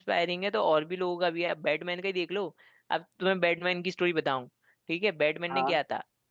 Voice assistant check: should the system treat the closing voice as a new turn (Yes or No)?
No